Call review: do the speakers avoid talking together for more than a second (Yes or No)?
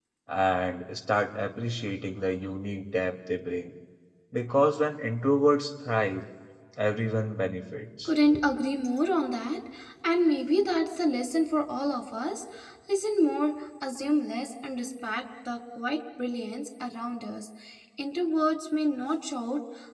Yes